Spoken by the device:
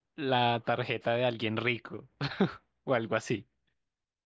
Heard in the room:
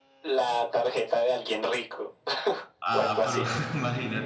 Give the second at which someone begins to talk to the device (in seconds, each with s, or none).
2.8 s